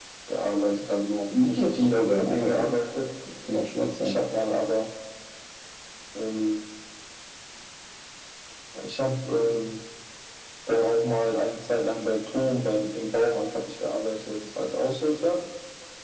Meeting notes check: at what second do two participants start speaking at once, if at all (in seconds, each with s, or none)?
1.3 s